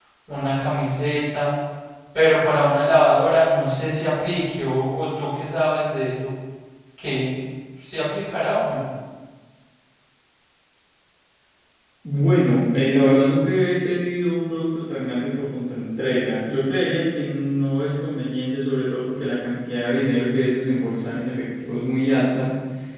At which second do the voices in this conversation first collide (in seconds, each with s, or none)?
none